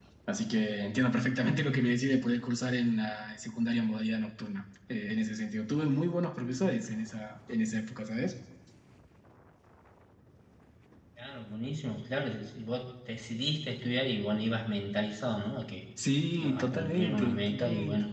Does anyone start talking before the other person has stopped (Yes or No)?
Yes